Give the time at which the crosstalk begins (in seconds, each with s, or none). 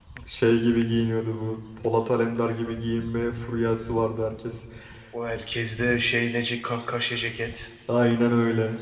none